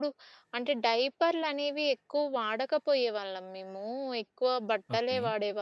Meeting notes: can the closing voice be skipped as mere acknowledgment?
Yes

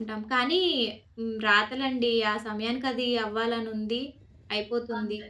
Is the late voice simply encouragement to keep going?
Yes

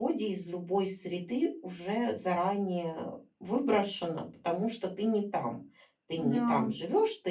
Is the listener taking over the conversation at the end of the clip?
No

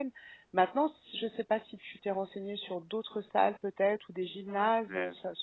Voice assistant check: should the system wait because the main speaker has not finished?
Yes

